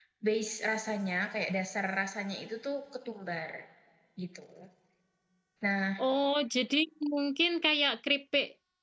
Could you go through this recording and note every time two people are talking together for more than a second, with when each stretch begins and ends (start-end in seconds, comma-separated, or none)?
none